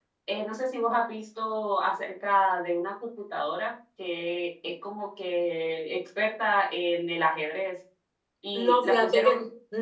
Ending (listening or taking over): taking over